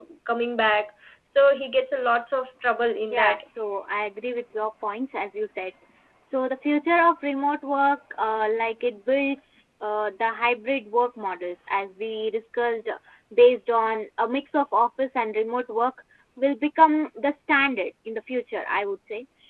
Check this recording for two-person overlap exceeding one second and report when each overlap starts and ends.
none

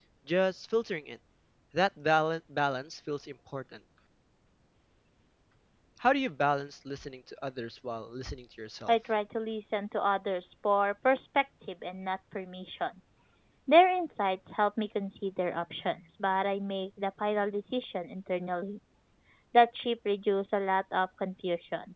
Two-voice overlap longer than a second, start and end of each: none

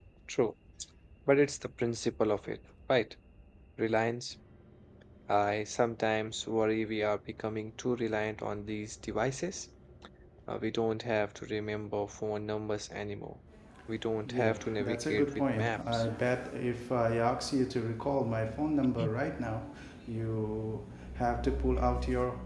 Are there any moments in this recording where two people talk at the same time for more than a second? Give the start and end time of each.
14.2-16.0

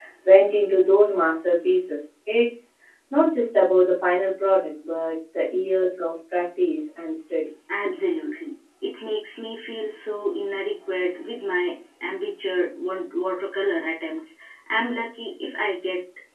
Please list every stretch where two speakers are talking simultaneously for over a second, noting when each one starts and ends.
none

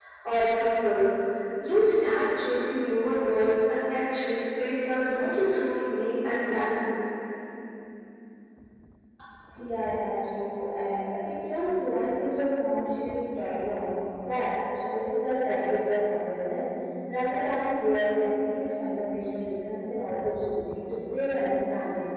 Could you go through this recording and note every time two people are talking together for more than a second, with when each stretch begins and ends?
none

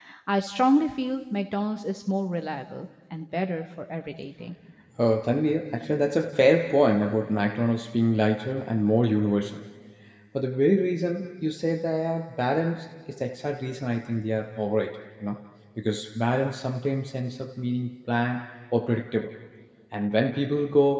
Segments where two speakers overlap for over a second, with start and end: none

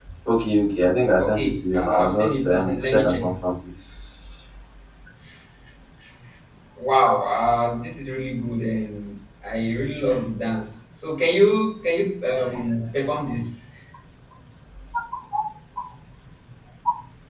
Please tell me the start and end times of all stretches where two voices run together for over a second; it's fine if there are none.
1.2-3.3

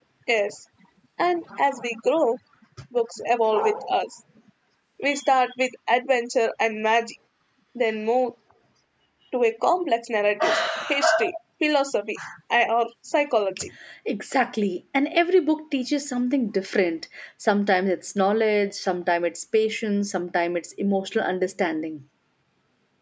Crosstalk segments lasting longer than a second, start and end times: none

